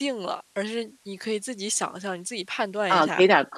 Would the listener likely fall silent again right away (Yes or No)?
No